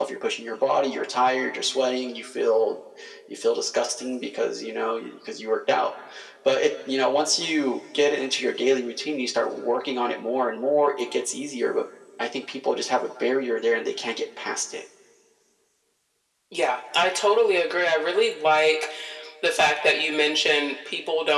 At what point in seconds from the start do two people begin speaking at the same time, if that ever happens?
none

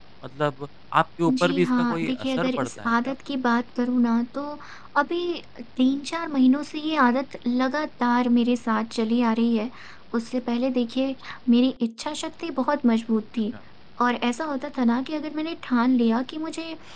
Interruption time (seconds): 1.3 s

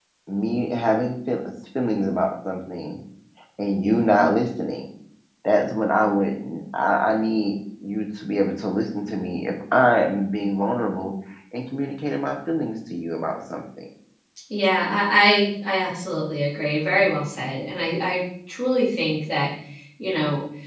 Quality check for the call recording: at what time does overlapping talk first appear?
none

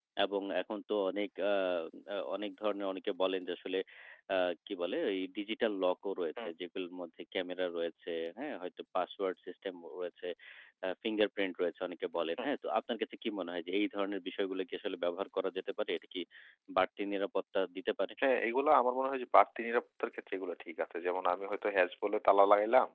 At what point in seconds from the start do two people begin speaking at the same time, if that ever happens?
none

